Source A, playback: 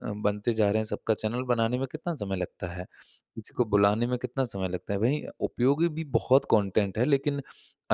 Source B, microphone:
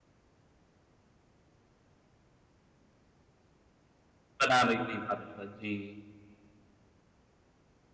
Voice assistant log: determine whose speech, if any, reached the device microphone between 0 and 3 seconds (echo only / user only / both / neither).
neither